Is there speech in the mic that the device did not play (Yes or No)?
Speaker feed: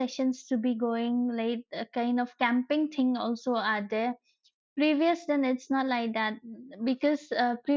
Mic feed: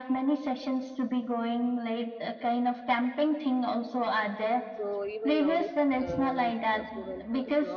Yes